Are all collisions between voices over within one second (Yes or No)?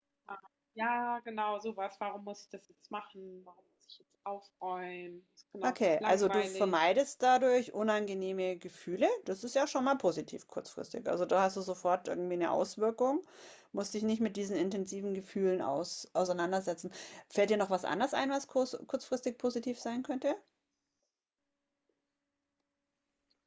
No